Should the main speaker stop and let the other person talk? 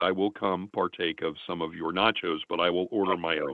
Yes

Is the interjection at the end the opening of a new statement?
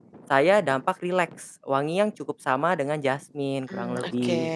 Yes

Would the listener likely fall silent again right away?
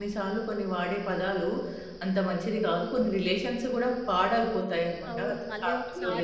No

